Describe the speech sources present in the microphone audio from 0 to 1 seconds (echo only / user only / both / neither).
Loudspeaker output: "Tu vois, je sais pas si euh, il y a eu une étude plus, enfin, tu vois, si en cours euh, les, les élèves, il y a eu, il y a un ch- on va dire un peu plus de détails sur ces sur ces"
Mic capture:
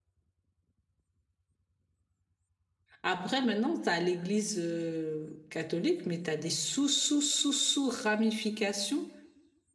neither